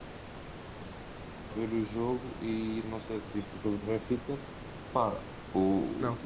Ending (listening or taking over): listening